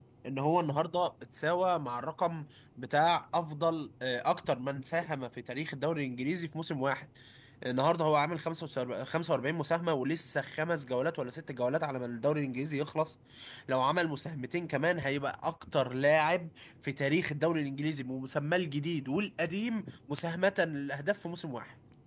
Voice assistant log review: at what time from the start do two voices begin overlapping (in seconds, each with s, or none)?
none